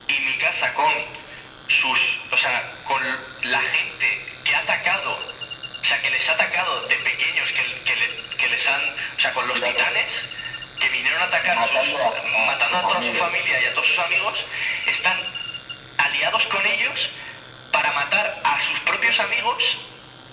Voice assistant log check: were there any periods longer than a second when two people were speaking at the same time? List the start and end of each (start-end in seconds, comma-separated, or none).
11.4-13.3